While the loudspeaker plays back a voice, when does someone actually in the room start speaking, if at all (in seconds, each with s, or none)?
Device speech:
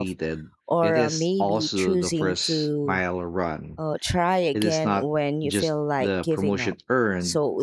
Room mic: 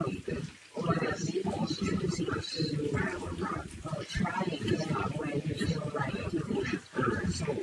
none